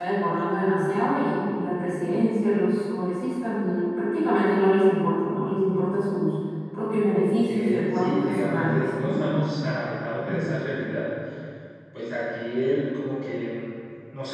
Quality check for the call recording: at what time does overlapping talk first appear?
7.5 s

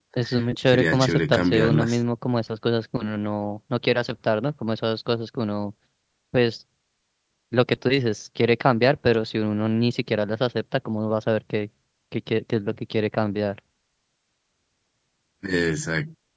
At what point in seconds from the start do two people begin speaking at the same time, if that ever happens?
0.7 s

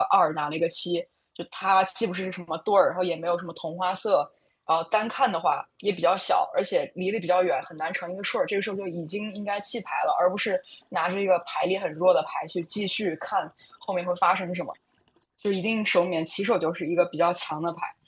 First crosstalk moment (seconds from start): none

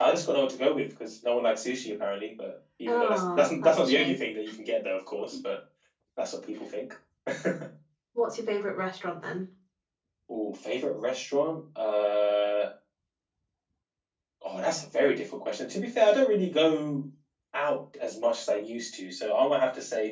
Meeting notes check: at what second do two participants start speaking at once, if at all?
2.9 s

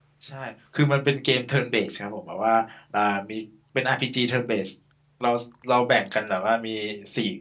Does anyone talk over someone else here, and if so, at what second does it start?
none

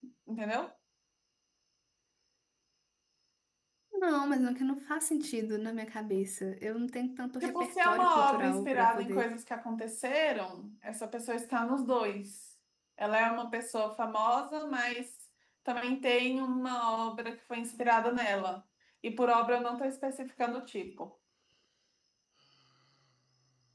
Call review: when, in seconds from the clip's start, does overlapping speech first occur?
7.4 s

